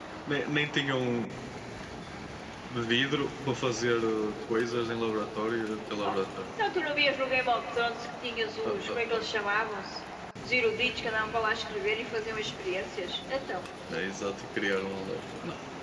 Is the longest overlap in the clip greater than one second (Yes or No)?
No